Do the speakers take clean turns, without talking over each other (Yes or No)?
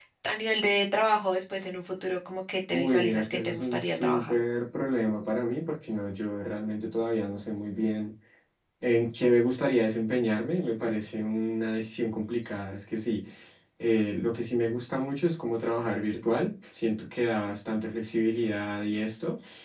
No